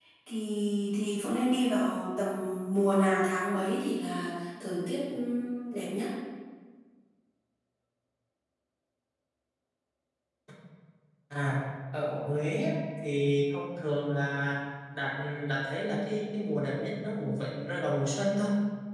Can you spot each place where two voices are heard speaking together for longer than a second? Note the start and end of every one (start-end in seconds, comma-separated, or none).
none